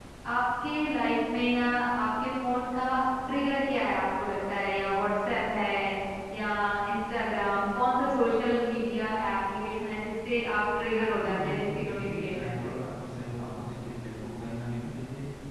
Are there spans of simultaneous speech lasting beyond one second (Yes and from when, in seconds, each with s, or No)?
Yes, from 11.2 s